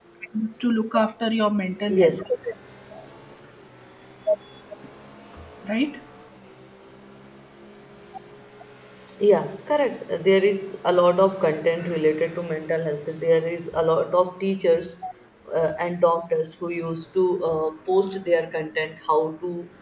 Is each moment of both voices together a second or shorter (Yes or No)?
Yes